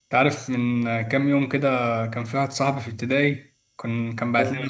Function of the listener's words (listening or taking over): listening